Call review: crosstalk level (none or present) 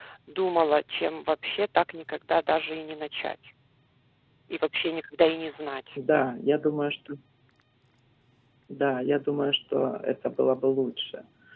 none